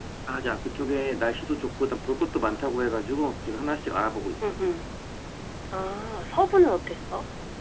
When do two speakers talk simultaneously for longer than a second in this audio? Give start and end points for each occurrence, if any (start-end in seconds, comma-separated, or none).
none